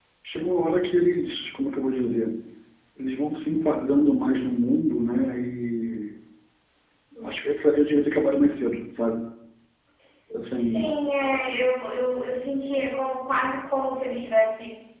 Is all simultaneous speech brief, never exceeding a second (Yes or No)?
Yes